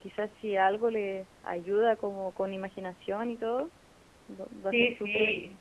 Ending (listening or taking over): taking over